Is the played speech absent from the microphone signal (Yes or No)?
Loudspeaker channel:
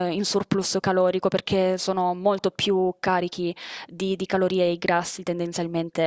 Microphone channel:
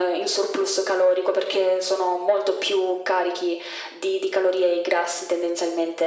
No